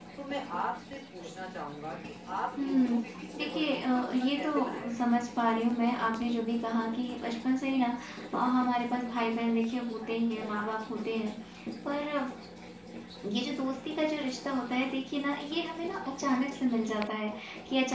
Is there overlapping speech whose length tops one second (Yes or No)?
Yes